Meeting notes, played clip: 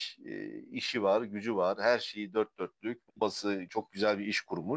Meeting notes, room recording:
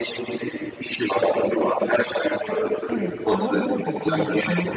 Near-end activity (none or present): present